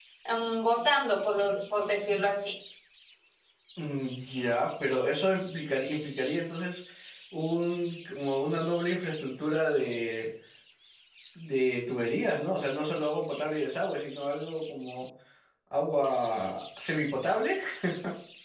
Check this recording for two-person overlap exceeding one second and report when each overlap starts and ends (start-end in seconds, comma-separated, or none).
none